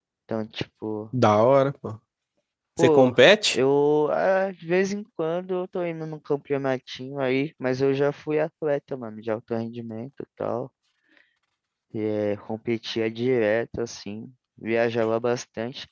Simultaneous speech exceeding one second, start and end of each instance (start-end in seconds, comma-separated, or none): none